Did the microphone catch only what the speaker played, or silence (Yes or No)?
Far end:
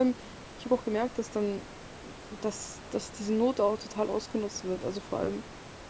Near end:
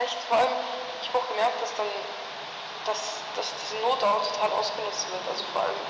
Yes